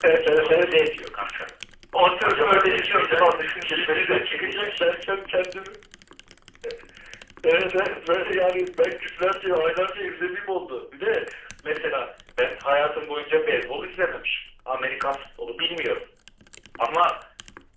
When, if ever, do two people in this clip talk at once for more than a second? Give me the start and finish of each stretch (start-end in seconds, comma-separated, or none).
2.2-4.8